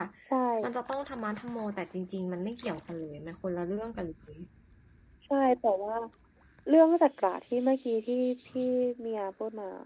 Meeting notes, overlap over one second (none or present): none